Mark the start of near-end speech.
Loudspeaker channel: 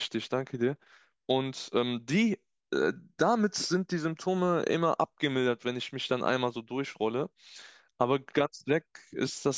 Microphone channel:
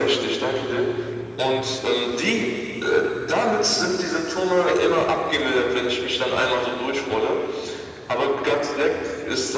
none

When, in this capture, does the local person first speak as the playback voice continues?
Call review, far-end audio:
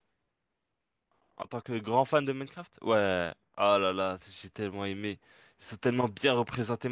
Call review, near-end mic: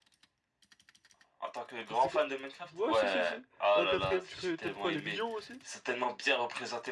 1.9 s

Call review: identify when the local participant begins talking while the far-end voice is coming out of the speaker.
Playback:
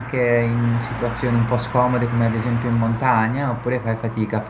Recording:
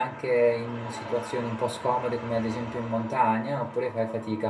none

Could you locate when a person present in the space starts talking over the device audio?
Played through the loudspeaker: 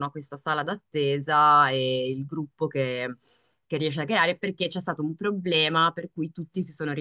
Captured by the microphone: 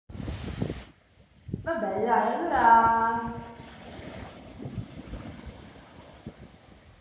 1.6 s

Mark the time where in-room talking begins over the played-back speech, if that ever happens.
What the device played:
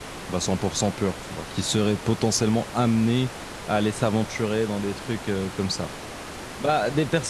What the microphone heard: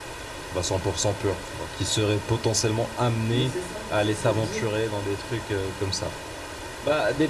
3.3 s

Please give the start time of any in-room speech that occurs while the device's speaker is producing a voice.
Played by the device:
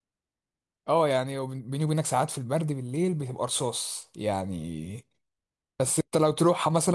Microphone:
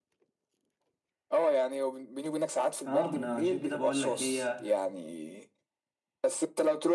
2.8 s

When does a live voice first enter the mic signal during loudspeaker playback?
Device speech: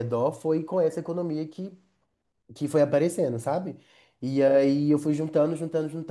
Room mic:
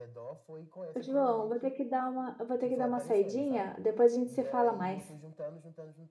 0.9 s

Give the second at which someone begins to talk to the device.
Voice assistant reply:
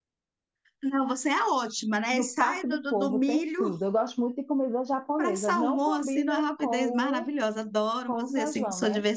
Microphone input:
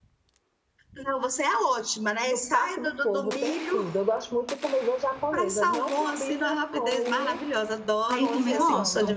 8.1 s

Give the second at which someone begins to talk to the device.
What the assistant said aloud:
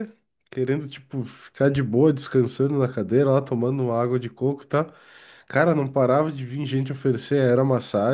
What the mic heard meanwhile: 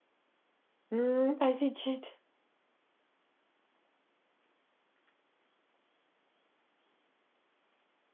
0.9 s

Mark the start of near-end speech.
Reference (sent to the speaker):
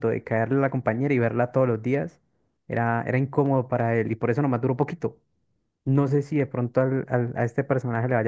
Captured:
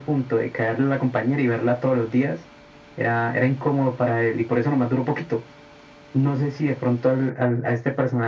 none

